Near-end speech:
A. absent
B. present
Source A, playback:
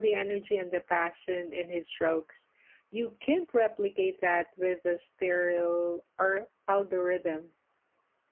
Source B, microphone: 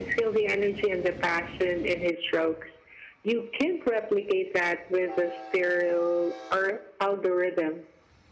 A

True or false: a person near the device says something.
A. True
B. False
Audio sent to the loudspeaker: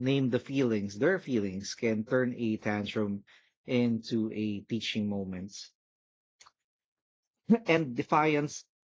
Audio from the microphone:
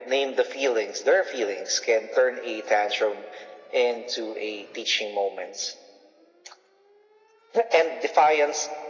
B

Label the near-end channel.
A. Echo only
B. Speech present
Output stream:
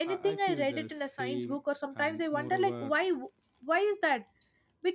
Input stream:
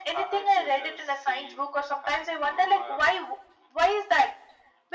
A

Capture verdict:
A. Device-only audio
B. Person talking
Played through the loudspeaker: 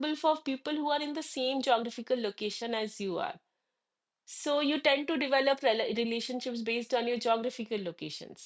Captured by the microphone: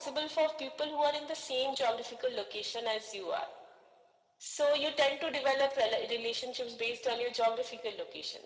A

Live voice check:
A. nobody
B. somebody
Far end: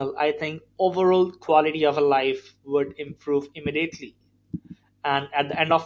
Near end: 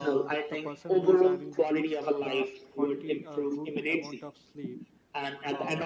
B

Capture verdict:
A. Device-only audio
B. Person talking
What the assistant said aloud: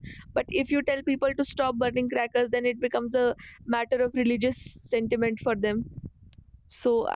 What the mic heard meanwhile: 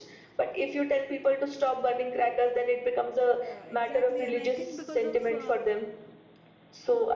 B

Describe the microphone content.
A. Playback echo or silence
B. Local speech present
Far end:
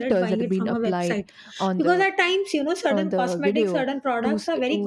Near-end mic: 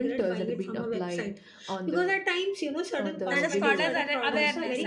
B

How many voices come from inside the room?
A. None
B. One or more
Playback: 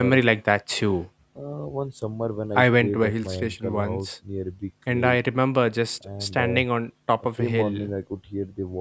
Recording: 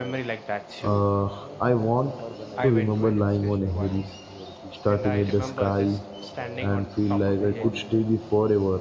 B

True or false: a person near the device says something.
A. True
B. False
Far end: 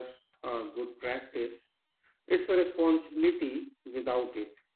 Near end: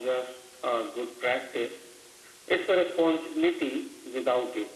B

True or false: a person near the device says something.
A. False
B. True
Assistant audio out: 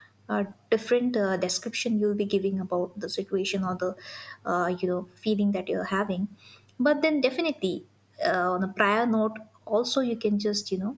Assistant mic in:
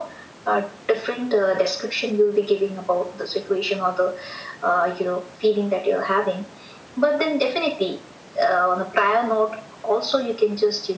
A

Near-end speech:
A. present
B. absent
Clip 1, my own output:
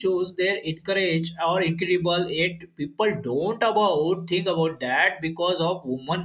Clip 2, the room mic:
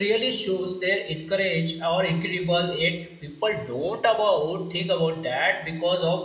B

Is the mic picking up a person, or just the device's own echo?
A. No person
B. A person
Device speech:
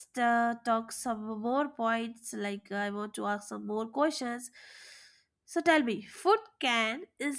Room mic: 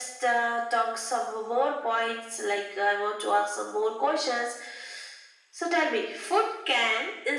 A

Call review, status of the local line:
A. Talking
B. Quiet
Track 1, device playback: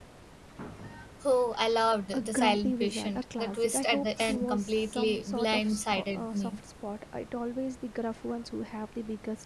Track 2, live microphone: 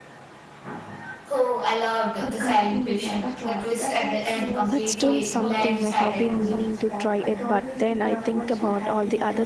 A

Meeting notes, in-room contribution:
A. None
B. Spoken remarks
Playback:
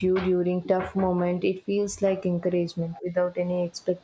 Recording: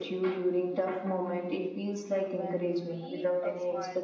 B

